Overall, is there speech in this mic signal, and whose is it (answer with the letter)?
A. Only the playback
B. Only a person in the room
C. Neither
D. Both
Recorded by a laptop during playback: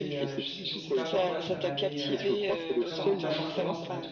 D